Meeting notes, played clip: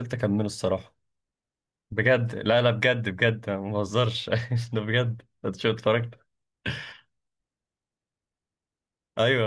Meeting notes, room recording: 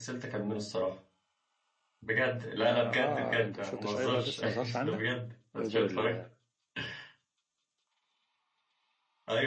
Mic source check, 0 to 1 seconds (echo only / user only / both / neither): echo only